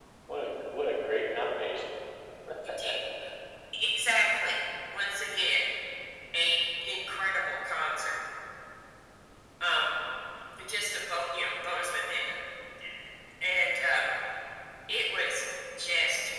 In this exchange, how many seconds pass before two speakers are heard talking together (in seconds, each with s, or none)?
none